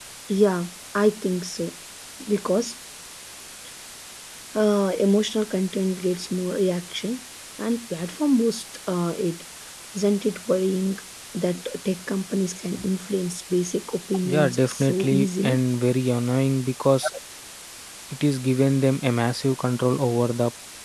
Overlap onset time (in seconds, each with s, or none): 14.2 s